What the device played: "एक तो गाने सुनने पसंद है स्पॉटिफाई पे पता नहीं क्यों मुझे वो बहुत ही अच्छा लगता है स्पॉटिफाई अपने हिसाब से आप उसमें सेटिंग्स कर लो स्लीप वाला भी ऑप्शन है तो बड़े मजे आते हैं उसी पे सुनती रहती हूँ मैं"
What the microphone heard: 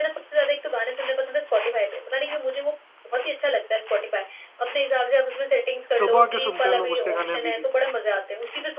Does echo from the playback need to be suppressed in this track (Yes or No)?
Yes